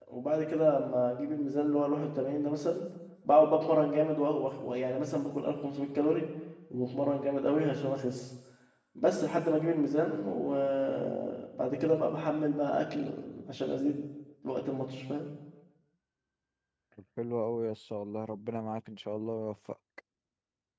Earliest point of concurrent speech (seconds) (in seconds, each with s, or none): none